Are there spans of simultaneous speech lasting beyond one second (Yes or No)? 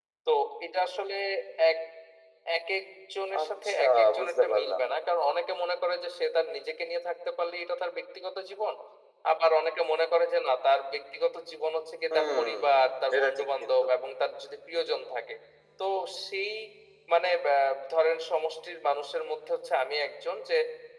Yes